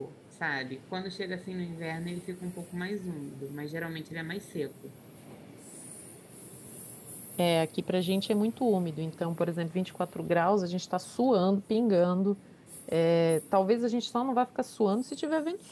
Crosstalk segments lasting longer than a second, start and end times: none

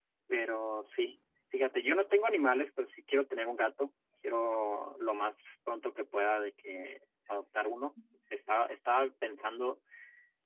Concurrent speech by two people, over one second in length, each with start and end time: none

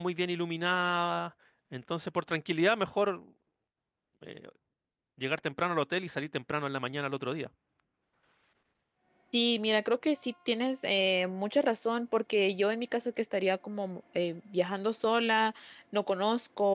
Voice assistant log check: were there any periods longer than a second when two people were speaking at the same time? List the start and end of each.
none

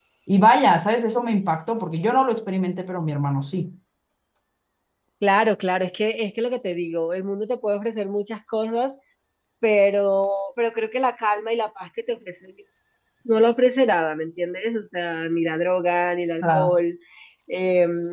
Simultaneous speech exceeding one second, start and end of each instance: none

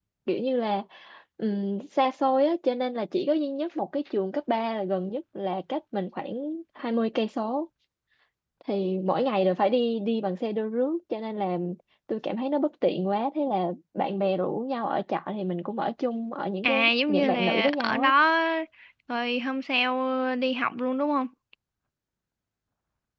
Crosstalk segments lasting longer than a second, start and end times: 16.6-18.1

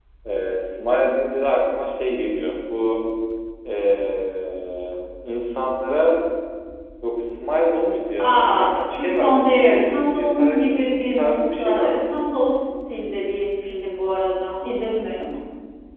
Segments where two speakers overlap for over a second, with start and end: 8.2-12.0

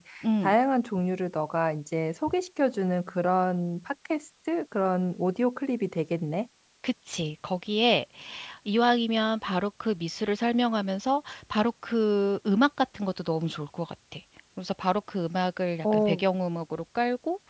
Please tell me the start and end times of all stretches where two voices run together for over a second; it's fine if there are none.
none

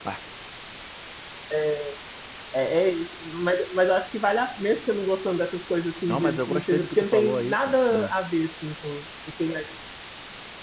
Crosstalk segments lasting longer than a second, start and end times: 6.1-8.1

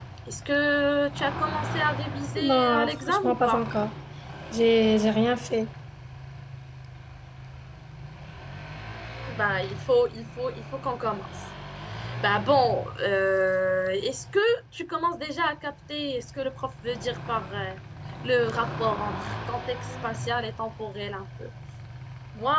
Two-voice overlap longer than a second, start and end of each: 2.4-3.6

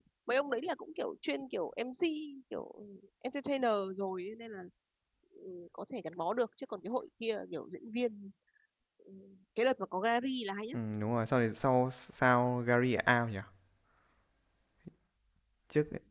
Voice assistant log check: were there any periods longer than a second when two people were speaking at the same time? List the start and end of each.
none

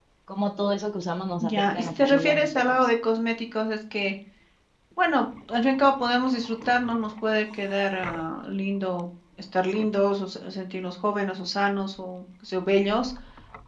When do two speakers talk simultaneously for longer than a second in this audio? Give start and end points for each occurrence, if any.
1.4-2.9

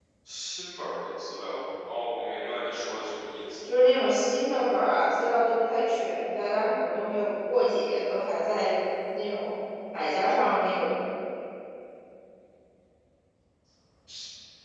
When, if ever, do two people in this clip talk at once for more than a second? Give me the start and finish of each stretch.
none

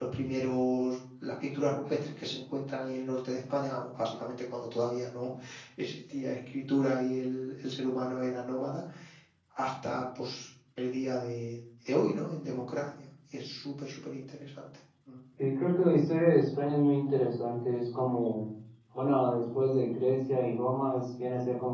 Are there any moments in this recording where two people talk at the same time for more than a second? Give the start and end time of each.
none

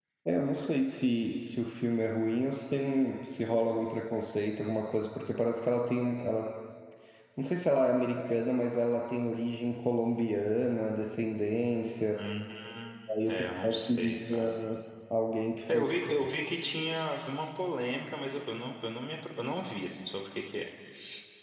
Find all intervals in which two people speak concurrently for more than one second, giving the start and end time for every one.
13.3-14.5

